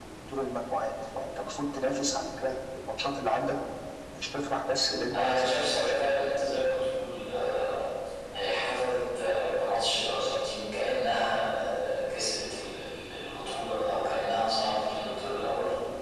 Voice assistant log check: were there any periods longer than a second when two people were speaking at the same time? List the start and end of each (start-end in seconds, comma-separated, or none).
5.1-6.5